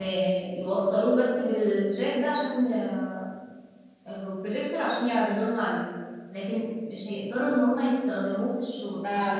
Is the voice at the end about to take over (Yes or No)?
Yes